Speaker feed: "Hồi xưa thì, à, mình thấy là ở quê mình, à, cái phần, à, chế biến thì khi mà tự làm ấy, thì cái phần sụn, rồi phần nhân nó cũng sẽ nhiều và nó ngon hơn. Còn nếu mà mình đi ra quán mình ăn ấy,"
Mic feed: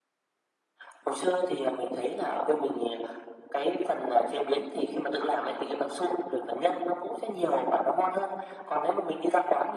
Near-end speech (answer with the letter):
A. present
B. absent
B